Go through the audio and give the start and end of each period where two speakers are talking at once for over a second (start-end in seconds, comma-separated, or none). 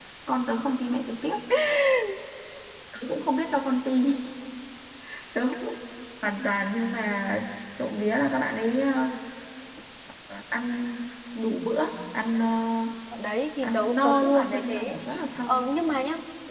13.6-15.0